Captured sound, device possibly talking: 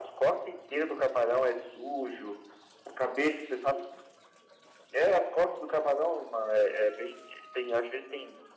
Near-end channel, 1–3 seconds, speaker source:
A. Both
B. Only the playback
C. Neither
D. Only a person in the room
B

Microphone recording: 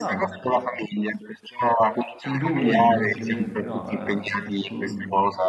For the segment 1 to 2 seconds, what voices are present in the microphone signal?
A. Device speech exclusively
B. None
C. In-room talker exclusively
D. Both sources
A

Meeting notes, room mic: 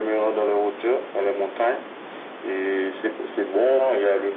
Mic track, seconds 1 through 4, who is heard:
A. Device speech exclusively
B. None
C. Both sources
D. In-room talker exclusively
A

